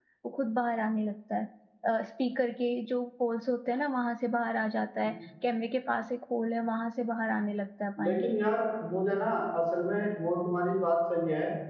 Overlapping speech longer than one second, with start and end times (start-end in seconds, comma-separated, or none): none